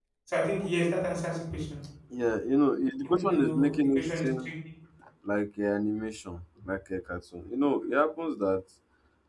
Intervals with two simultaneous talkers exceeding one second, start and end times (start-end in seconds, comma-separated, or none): 3.0-4.5